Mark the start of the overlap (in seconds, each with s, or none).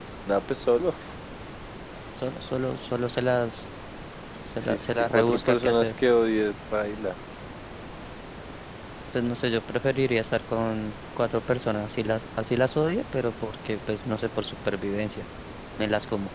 4.6 s